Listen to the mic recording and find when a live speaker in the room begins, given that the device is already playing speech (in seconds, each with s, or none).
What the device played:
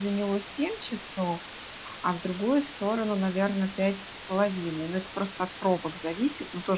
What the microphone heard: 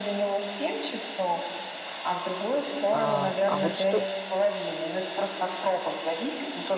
2.9 s